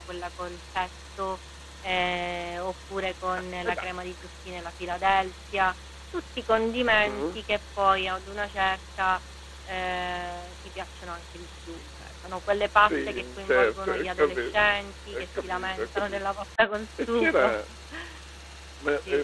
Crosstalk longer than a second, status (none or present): present